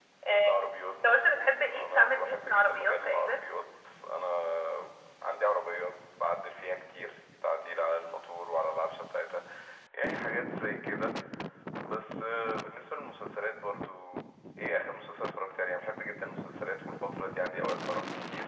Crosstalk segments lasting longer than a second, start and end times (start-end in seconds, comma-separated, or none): 0.9-3.4